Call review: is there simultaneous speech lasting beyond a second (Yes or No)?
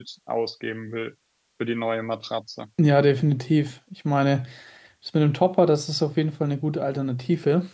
No